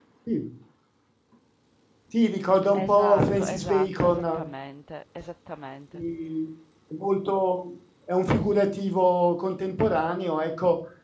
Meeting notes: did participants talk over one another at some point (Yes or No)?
Yes